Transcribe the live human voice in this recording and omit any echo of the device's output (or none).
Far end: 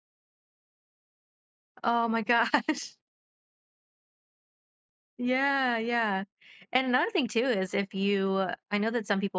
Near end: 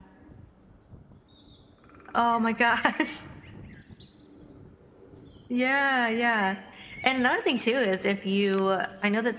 none